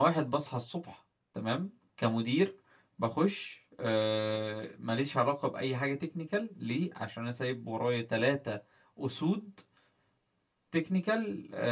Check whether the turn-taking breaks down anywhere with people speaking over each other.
No

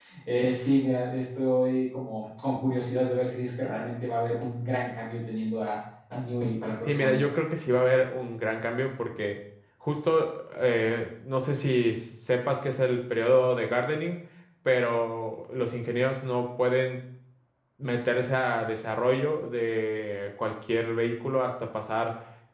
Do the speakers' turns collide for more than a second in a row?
No

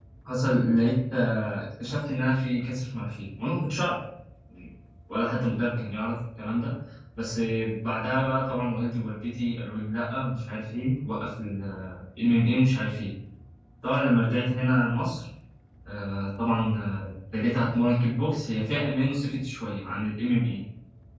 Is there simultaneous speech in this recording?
No

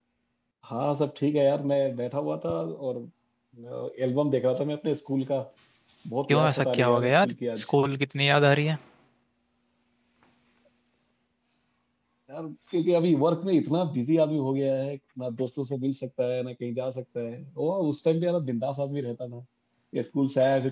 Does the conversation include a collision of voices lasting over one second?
Yes, from 6.3 s

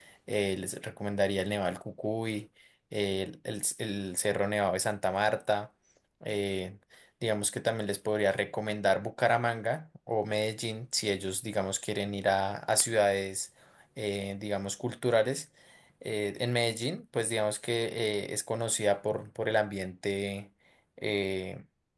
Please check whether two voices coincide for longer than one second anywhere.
No

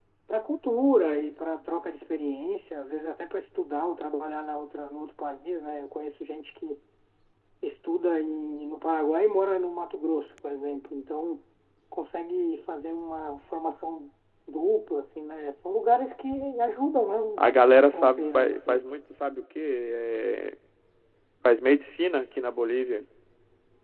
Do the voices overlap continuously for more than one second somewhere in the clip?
Yes, from 17.4 s

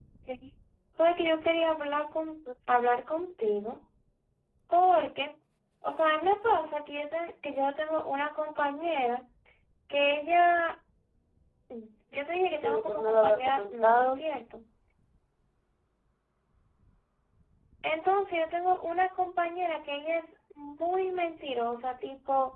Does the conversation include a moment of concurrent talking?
Yes, from 12.4 s

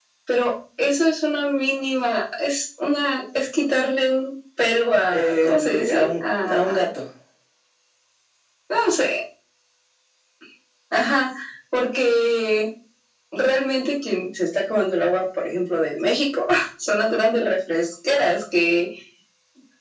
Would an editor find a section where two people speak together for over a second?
Yes, from 5.1 s

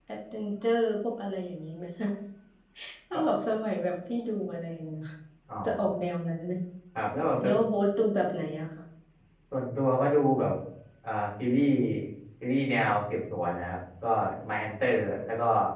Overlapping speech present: No

